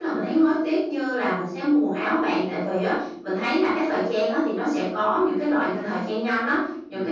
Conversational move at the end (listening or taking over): listening